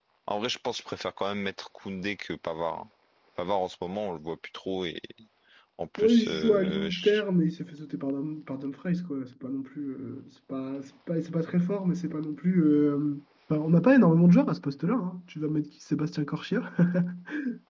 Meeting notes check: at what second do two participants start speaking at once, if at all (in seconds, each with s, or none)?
6.0 s